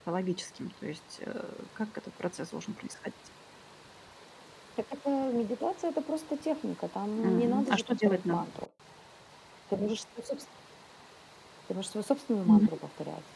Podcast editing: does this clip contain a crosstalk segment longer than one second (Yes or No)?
Yes